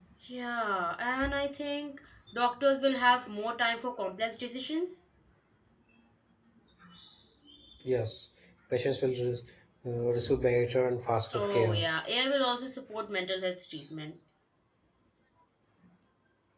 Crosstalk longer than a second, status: none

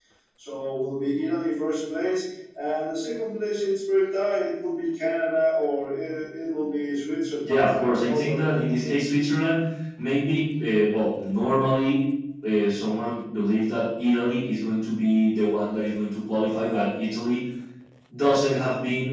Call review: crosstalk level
present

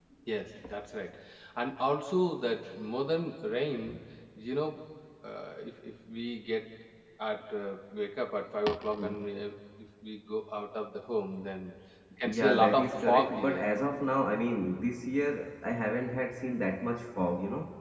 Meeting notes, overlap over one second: present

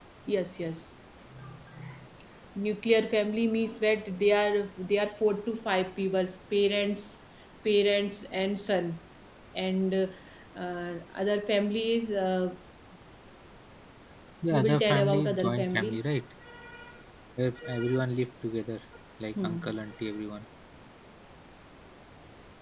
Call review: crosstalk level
present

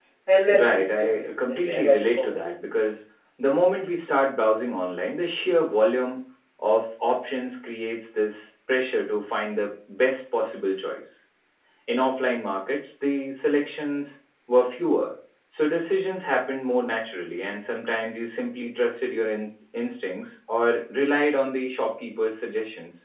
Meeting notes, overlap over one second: present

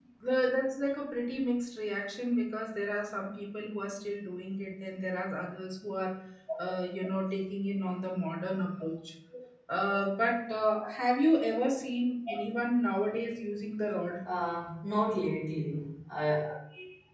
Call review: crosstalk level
none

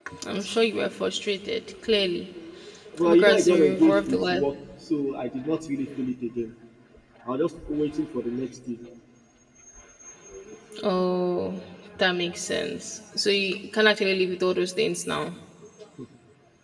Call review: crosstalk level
present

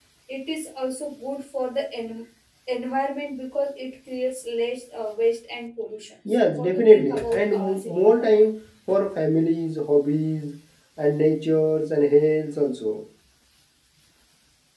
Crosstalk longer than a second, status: present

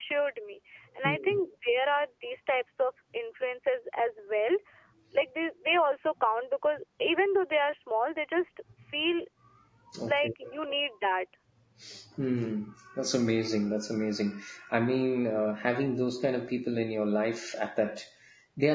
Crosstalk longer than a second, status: none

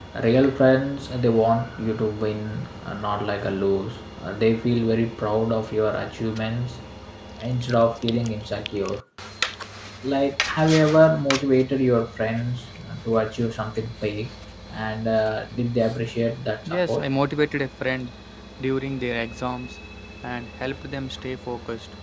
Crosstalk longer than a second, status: none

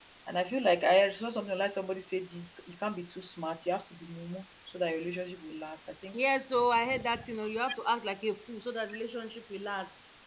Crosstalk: none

